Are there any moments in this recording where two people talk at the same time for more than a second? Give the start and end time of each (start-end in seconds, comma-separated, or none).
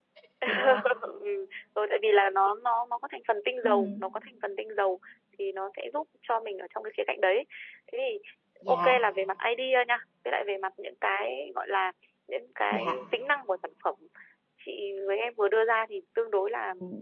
none